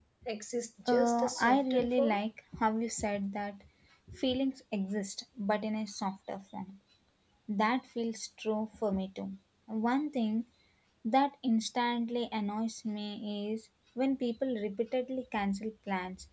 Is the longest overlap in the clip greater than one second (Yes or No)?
Yes